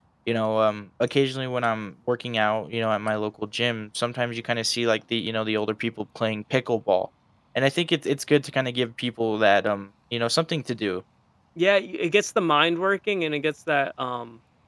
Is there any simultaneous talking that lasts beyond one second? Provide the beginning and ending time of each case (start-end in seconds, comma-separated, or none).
none